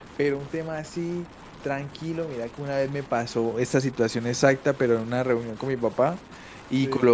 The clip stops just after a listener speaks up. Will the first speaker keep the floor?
Yes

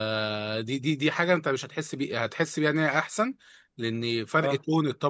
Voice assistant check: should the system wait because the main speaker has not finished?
Yes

